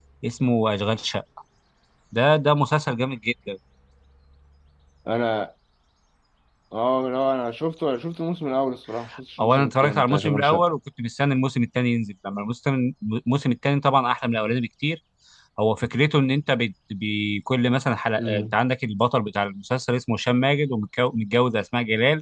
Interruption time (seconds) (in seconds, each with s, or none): 9.4 s